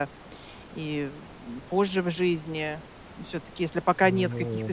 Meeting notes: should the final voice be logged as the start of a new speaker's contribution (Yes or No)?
No